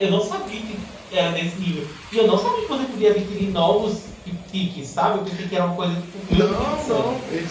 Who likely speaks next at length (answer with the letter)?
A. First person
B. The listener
B